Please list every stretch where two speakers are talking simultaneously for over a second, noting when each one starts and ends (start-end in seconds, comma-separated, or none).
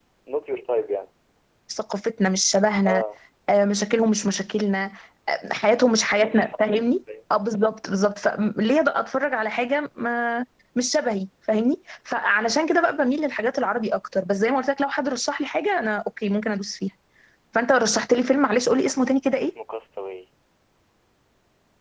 none